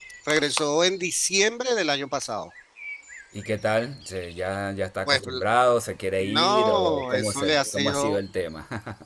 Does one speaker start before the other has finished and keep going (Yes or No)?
Yes